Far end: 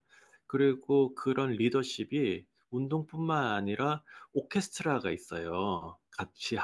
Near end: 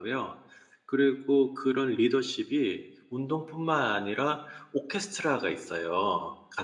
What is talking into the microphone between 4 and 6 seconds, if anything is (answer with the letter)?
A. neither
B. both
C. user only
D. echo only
D